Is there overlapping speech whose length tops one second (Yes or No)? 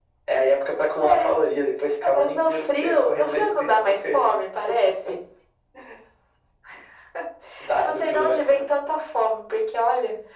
Yes